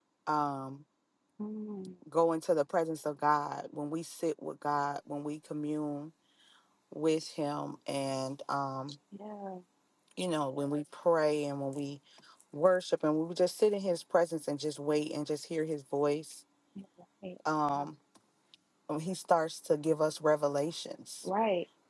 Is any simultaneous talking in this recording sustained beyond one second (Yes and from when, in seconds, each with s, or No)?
No